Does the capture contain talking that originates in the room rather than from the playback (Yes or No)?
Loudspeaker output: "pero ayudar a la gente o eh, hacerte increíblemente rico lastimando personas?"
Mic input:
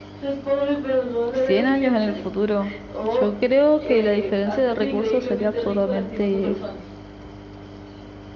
Yes